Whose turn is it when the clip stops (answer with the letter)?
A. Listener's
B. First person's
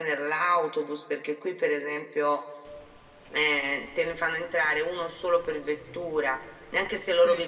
B